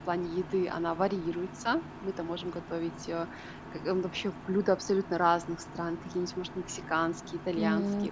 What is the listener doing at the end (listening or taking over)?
listening